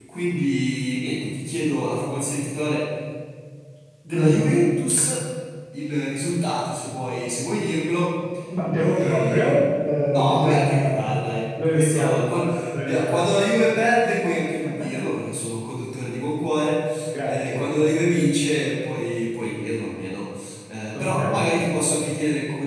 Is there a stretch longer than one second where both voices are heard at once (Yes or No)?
Yes